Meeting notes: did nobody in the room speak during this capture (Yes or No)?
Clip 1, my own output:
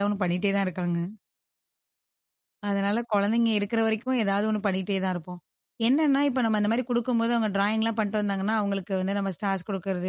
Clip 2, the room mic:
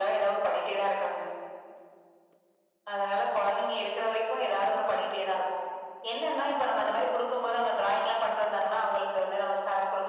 Yes